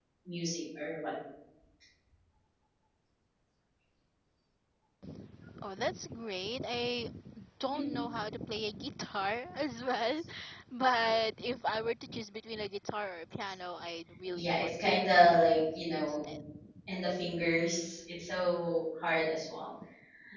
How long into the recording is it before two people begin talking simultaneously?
14.3 s

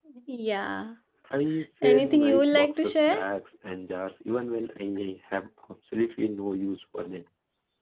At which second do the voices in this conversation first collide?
1.8 s

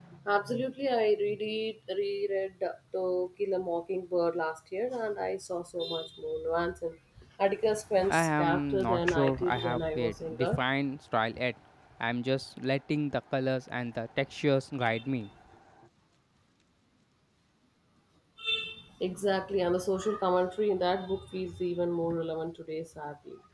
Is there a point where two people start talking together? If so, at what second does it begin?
8.1 s

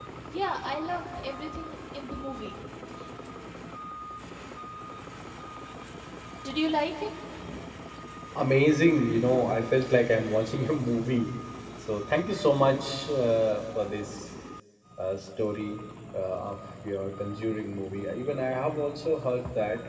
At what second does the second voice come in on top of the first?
none

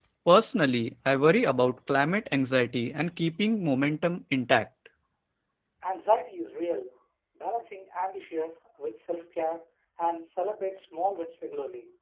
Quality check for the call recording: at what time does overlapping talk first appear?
none

